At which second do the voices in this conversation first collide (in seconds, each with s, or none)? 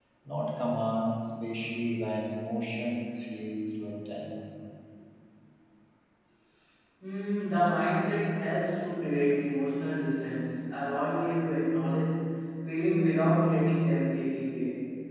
none